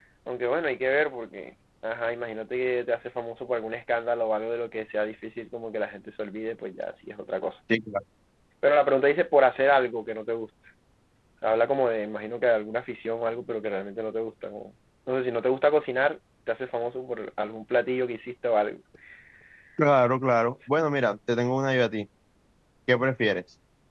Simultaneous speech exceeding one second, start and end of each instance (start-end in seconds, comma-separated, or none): none